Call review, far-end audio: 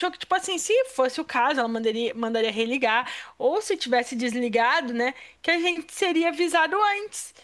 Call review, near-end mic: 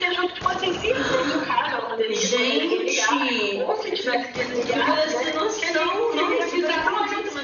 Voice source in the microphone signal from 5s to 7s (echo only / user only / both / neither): both